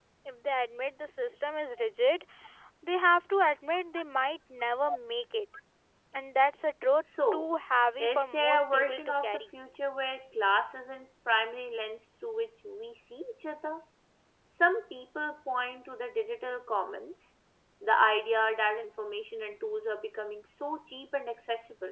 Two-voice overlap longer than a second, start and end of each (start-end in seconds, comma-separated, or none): 8.0-9.4